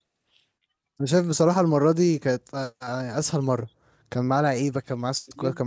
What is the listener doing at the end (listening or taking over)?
taking over